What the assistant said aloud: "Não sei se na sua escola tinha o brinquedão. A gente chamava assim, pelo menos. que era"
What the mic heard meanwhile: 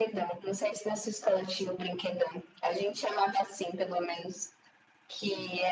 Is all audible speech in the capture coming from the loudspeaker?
Yes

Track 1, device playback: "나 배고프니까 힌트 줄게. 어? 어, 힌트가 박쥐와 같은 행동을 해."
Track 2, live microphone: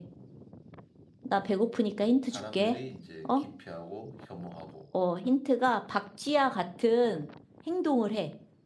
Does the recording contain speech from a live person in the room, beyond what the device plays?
Yes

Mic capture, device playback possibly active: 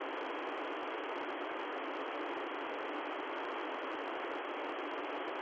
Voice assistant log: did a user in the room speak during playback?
No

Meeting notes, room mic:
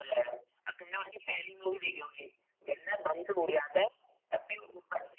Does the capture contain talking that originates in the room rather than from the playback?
No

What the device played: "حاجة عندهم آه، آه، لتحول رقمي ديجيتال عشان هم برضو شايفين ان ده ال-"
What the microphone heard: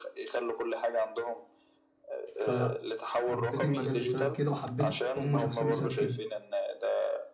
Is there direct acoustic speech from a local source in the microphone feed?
Yes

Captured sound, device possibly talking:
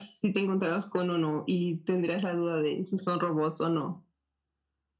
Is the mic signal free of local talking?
Yes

